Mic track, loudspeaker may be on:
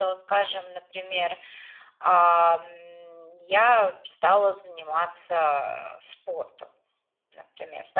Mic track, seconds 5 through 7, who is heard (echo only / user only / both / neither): echo only